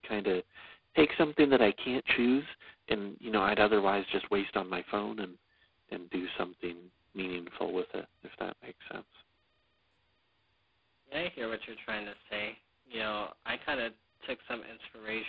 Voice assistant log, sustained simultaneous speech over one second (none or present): none